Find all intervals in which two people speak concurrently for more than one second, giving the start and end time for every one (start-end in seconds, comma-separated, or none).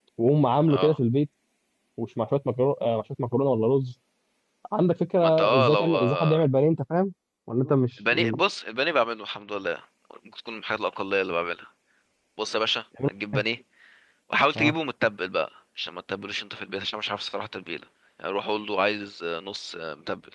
5.2-6.4